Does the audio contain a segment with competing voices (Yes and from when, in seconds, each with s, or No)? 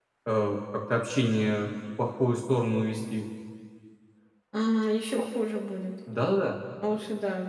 No